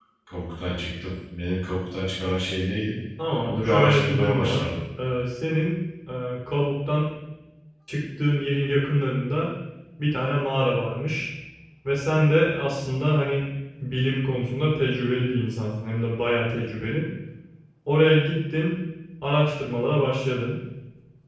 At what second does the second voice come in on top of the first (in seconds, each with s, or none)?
3.5 s